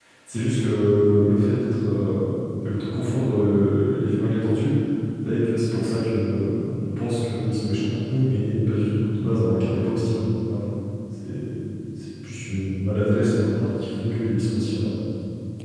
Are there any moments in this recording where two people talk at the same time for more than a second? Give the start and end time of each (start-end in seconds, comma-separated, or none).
none